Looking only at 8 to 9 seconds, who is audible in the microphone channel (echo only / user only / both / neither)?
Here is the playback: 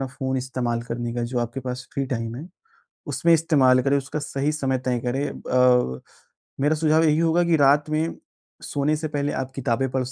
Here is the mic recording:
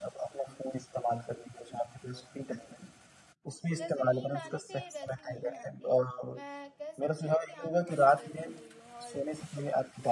both